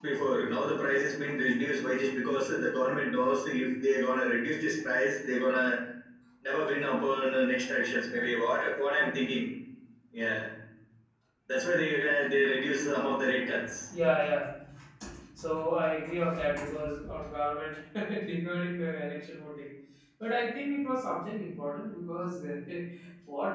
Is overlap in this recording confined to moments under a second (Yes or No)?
Yes